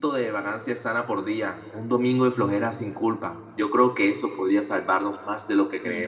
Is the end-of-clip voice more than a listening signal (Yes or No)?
Yes